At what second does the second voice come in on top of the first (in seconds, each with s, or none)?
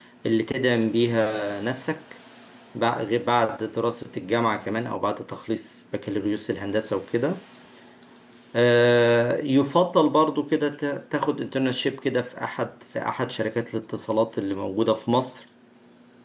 none